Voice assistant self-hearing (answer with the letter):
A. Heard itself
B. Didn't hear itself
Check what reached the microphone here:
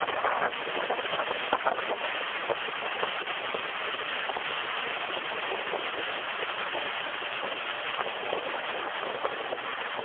B